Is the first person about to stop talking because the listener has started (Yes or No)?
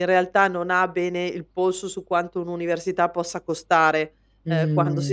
No